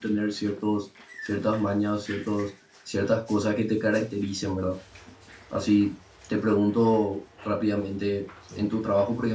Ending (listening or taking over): listening